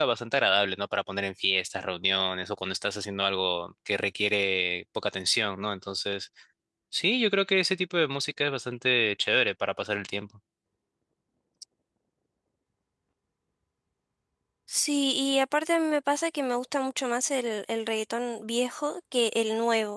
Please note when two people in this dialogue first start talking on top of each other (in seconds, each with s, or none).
none